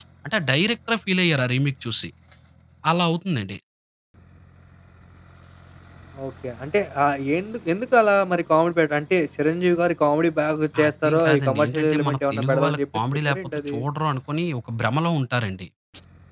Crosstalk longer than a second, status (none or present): present